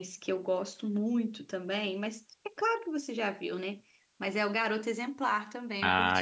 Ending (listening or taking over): taking over